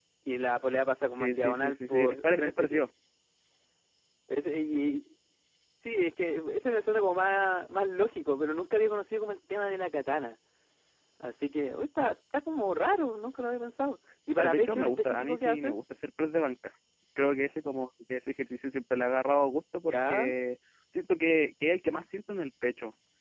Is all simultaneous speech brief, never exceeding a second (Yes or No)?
No